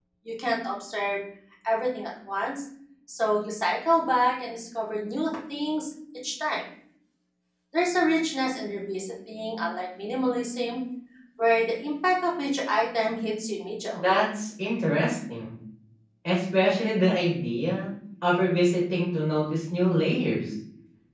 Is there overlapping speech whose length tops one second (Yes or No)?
No